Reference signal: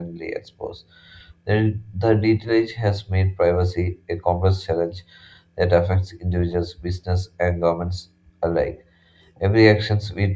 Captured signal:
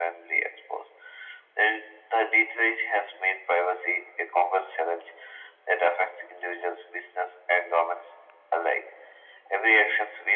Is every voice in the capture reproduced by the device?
Yes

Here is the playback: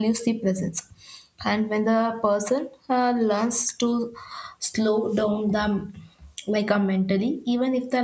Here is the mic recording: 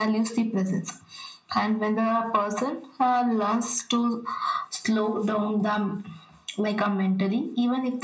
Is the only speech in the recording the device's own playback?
Yes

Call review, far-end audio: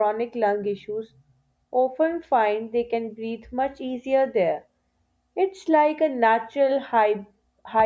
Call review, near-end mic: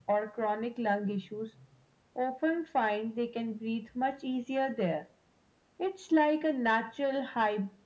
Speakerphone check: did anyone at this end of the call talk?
No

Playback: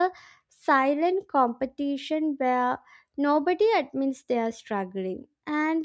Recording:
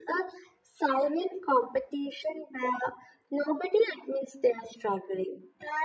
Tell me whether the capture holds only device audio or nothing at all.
Yes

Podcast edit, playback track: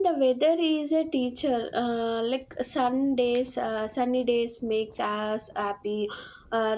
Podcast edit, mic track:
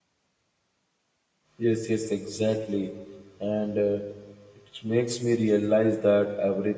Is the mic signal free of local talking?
No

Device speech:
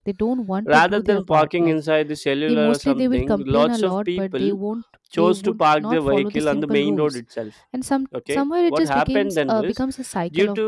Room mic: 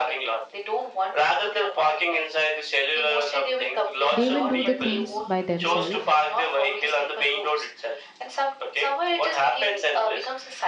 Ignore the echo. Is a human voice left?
Yes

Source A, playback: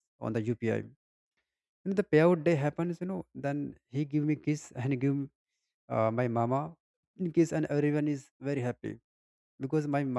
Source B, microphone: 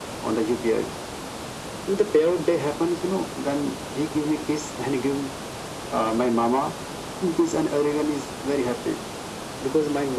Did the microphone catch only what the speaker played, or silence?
Yes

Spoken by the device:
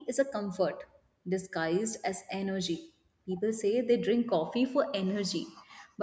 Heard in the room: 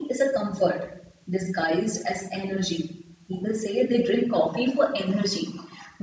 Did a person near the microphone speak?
No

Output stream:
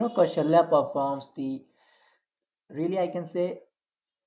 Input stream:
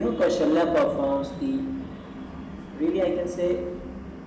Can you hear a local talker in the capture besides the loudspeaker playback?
No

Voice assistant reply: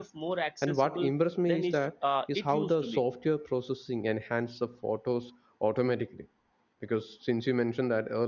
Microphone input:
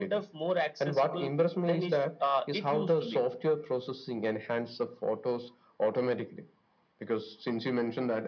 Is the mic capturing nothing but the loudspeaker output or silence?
Yes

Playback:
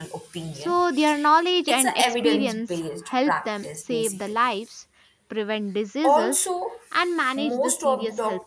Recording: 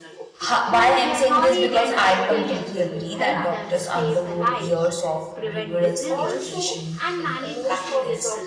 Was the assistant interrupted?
Yes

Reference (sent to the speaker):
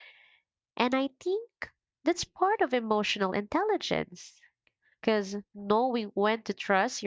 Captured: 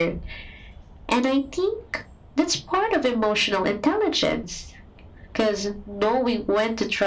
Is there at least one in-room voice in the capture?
No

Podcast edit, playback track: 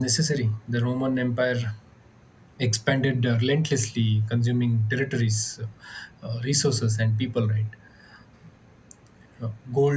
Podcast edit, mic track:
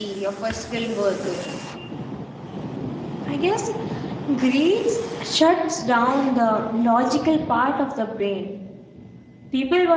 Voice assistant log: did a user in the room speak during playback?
Yes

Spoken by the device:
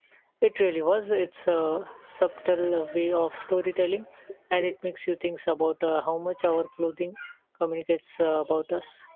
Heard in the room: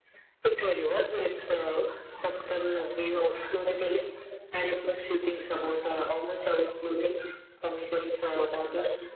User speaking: No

